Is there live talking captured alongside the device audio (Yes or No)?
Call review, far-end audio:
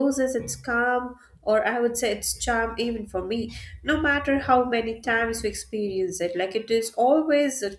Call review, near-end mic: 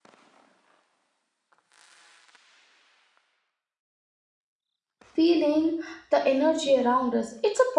Yes